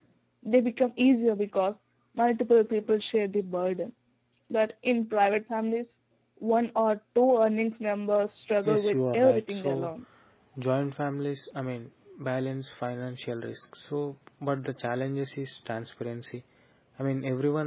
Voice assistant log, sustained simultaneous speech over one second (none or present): present